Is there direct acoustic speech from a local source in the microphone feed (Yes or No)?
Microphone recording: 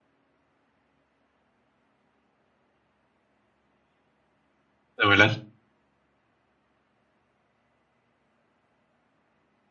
Yes